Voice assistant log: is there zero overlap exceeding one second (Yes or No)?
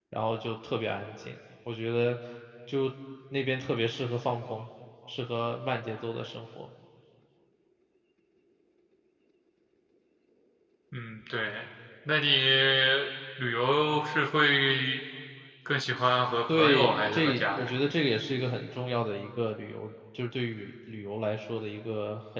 No